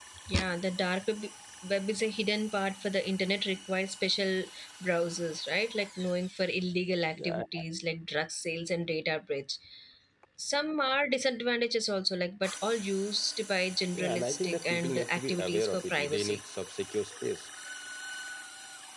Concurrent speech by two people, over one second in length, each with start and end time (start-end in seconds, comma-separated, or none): 13.9-16.4